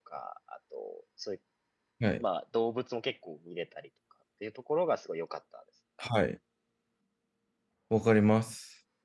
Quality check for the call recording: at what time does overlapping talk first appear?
none

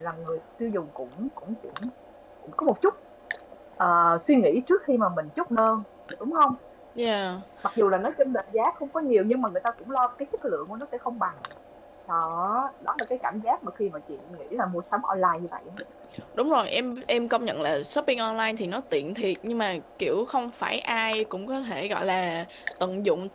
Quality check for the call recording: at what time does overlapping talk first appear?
none

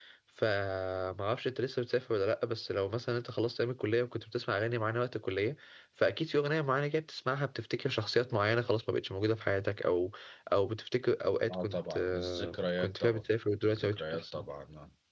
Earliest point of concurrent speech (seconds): 11.5 s

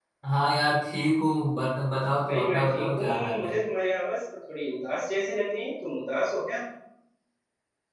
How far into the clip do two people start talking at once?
2.2 s

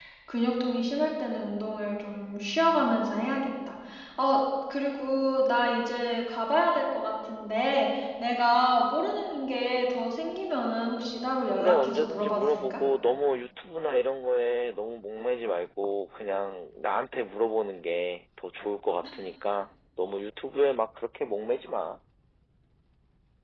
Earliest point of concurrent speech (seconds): 11.6 s

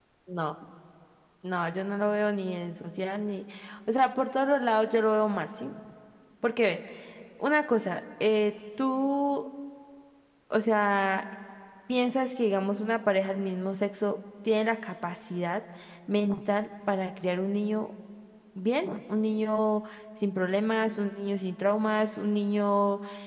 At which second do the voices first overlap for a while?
none

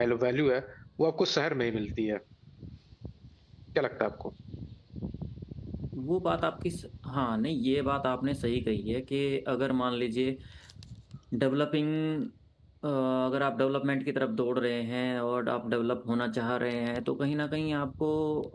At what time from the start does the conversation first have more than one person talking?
none

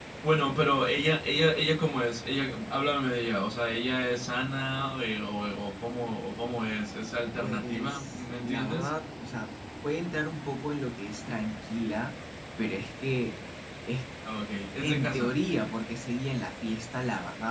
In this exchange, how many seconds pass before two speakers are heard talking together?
7.4 s

